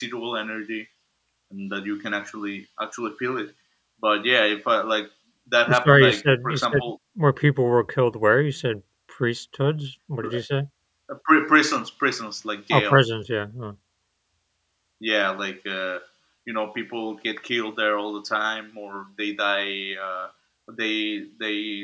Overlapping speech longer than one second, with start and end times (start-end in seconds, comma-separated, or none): 5.7-6.9